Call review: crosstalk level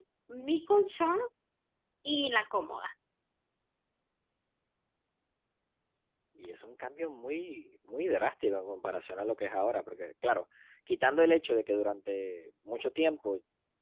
none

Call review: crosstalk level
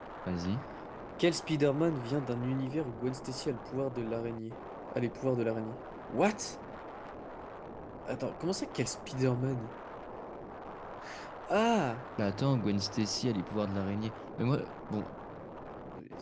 none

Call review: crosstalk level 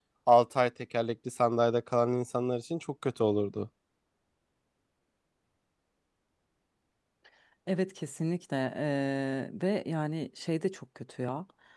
none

